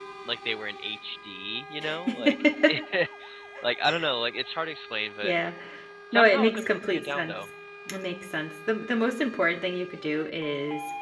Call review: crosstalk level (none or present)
present